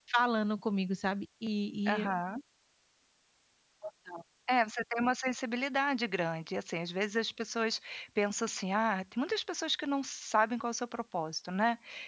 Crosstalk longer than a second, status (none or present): none